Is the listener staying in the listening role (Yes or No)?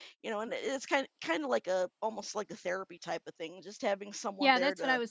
No